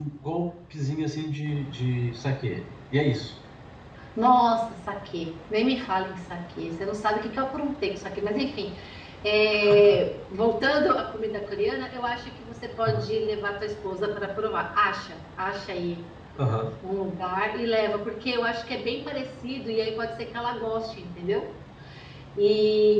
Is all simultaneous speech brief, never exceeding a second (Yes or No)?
Yes